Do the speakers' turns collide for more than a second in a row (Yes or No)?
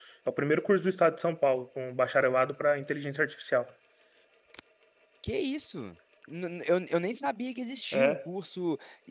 No